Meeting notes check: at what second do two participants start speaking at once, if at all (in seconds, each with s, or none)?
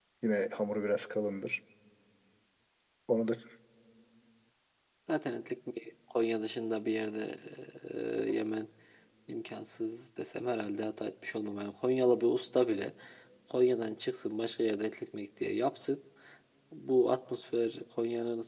none